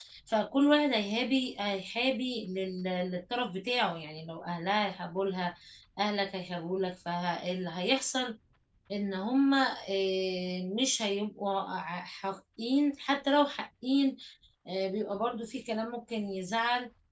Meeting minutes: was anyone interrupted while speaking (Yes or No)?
No